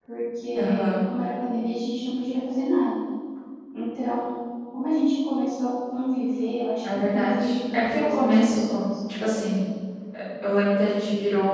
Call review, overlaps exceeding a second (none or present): present